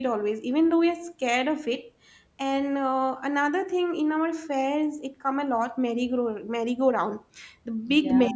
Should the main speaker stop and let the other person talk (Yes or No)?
No